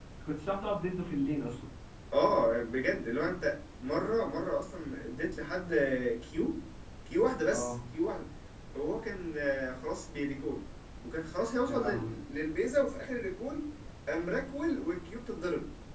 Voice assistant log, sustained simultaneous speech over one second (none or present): none